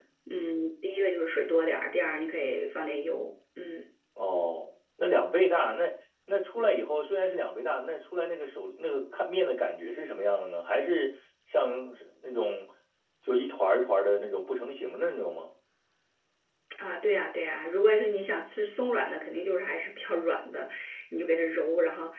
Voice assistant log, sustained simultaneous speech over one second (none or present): none